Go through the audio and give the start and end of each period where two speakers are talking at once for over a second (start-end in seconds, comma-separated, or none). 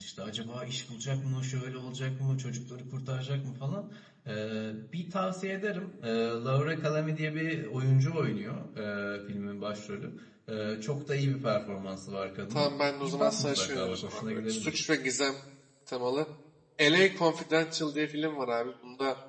12.5-14.8